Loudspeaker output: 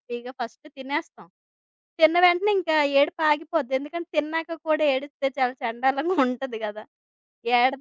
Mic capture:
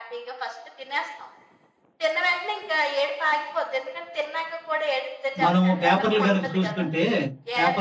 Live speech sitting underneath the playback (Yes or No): No